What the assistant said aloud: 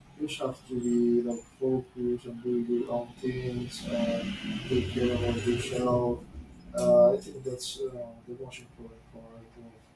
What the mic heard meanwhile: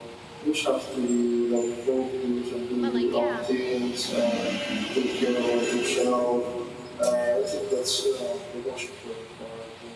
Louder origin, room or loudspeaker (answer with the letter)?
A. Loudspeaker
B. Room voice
A